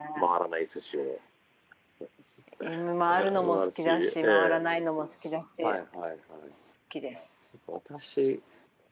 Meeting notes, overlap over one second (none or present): present